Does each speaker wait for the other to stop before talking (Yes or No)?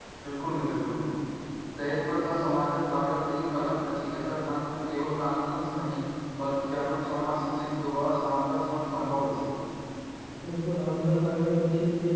Yes